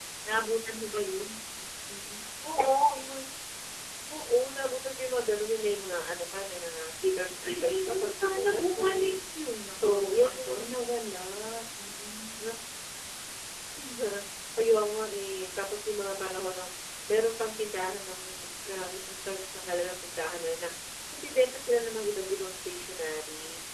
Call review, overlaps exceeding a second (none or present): present